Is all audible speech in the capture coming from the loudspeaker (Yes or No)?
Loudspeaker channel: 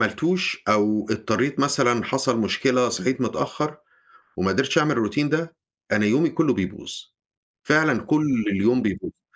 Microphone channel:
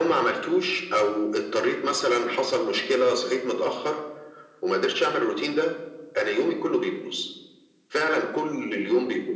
Yes